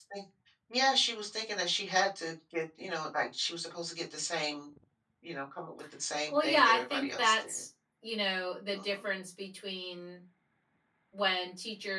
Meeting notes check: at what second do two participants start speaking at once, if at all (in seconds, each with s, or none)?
6.3 s